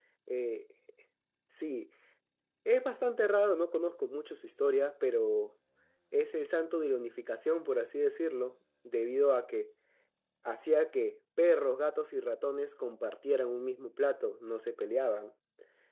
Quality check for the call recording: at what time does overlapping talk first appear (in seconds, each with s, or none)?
none